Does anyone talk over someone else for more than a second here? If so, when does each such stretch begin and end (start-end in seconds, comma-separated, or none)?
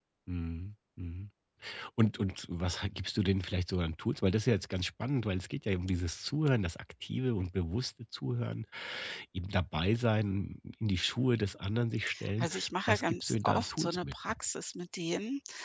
12.9-14.2